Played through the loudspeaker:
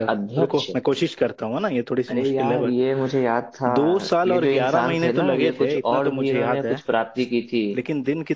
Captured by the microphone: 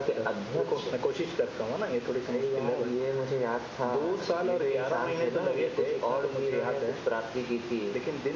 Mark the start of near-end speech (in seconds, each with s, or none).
none